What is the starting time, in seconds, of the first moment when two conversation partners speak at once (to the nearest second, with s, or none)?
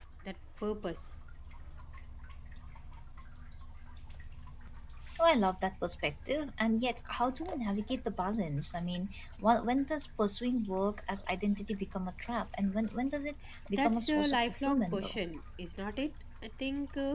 14 s